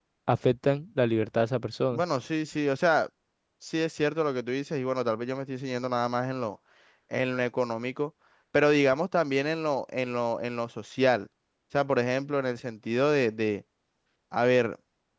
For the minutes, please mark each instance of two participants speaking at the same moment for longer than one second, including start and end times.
none

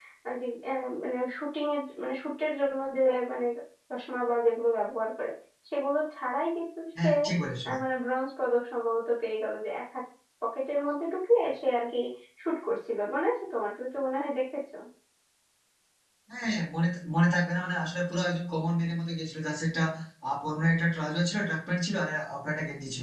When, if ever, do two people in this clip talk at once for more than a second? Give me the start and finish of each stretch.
none

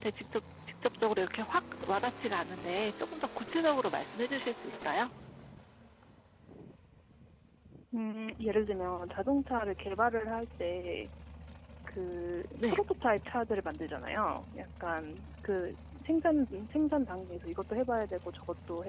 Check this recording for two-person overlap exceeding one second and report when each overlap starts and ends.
none

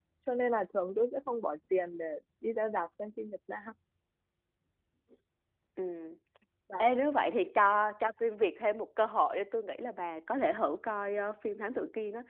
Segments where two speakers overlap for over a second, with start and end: none

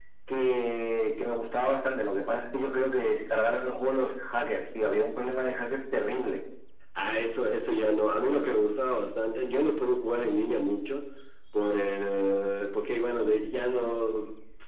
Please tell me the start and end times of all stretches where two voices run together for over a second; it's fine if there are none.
none

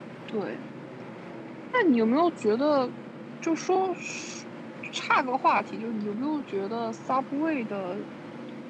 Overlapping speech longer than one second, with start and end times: none

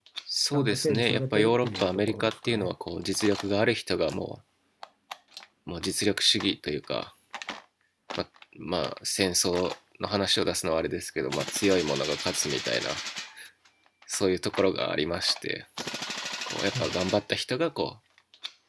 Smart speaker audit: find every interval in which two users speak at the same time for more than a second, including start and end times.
0.5-2.7

